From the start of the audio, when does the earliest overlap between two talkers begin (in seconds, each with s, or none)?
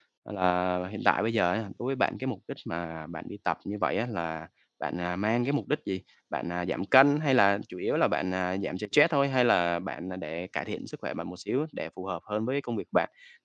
none